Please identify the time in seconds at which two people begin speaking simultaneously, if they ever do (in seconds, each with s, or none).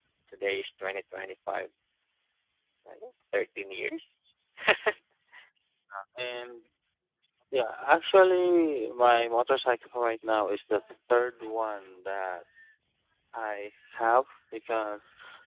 none